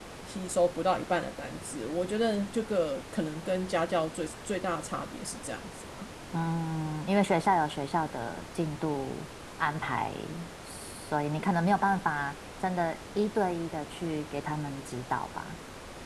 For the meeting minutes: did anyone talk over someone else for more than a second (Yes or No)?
No